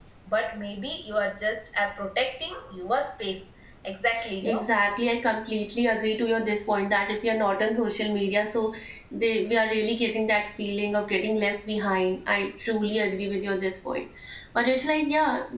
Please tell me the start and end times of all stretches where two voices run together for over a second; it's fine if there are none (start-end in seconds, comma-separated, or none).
none